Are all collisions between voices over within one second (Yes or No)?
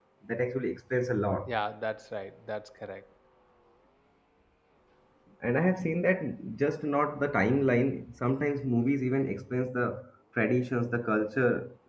Yes